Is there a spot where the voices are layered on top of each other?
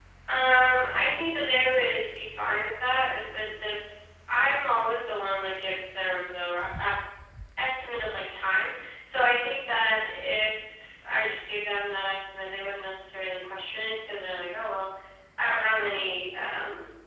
No

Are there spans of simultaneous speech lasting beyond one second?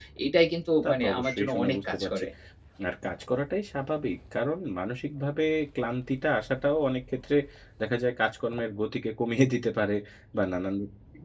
Yes, from 0.8 s

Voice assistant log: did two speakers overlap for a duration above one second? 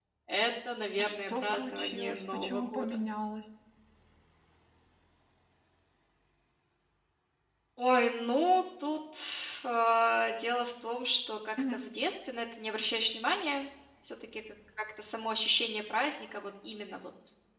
Yes, from 1.0 s

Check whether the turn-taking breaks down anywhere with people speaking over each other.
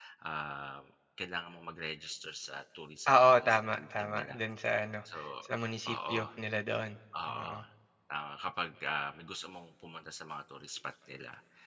Yes, from 3.1 s

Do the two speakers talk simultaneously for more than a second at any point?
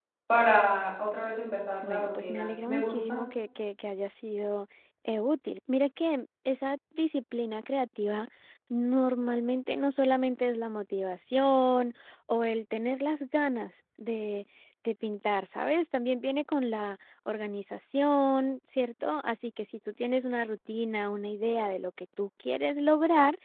Yes, from 1.8 s

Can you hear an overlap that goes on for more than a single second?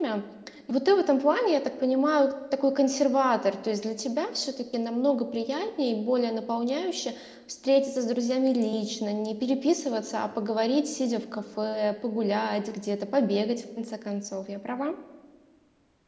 No

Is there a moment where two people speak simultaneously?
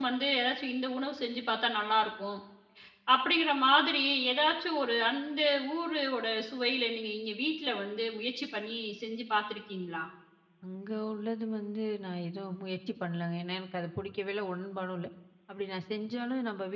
No

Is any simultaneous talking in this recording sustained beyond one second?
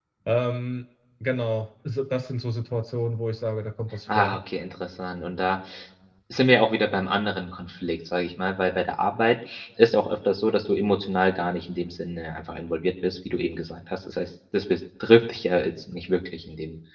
No

